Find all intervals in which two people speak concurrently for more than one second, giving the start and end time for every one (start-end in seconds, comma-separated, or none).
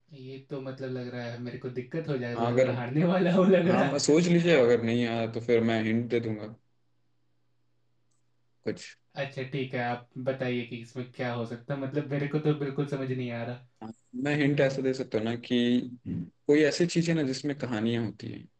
none